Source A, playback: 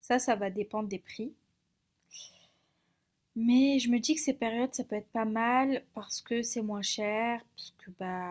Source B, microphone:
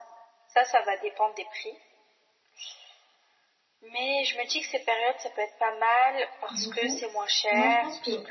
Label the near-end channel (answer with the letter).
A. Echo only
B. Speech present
B